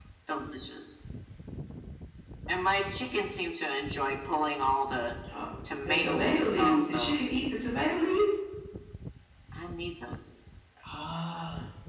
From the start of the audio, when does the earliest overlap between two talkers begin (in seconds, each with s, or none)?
5.8 s